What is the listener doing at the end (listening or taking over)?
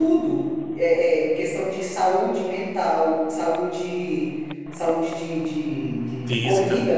listening